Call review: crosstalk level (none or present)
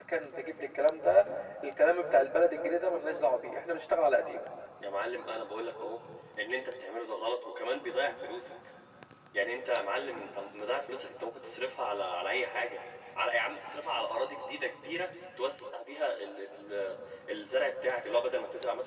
none